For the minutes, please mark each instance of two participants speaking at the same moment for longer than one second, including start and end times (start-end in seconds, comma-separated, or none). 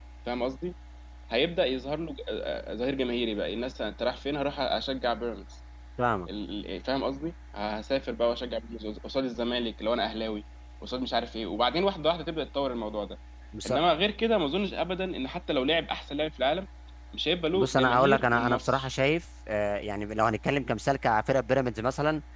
17.5-18.9